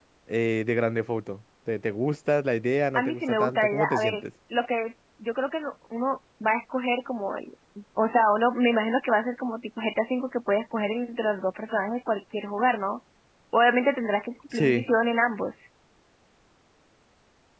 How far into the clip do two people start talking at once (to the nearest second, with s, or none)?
3 s